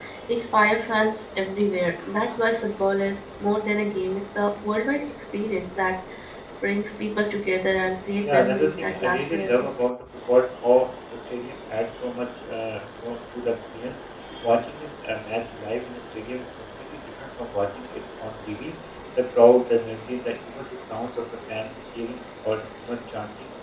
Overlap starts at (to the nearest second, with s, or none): 8 s